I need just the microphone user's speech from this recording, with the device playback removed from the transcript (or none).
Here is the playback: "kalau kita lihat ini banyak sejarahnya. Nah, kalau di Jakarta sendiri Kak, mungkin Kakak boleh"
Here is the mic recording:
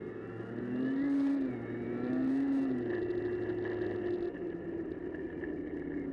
none